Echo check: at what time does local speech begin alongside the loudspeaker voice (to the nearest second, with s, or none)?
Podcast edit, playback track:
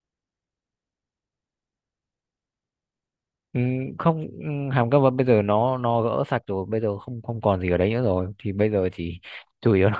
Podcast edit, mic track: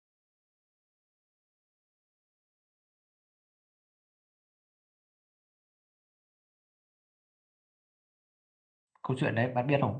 9 s